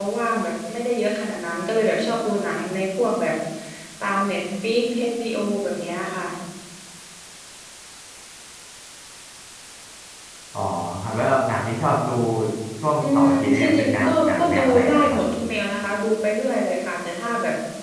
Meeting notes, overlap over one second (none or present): present